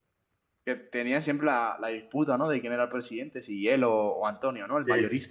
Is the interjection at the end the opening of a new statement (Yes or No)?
Yes